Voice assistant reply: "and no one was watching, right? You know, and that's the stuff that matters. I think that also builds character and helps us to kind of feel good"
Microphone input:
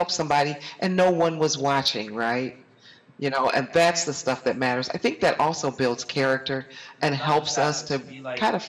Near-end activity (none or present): present